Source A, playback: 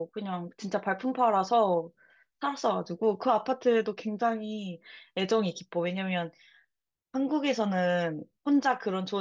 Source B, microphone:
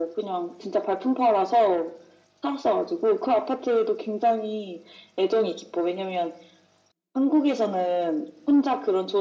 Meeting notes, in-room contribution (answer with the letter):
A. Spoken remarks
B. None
B